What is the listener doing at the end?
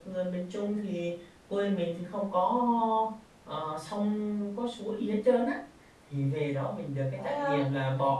listening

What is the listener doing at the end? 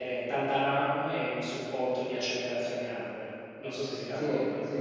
taking over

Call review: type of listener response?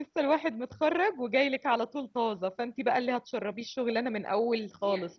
taking over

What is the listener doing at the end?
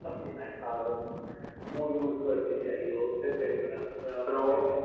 taking over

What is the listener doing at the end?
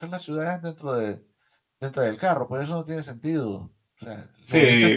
taking over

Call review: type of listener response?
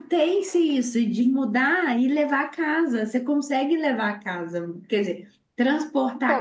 taking over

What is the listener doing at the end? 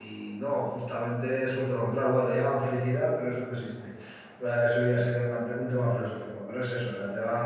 listening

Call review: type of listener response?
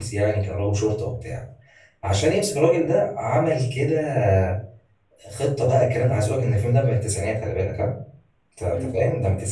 listening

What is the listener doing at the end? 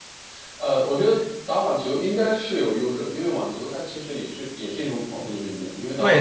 taking over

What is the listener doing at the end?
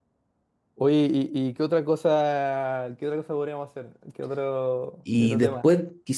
taking over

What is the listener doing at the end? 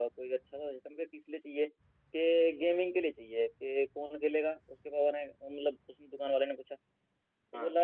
listening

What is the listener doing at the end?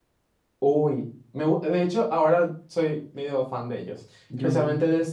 listening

